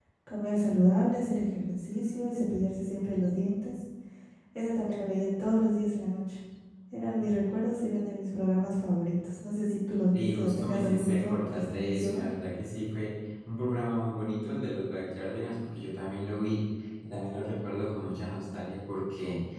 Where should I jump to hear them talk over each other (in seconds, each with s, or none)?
10.1 s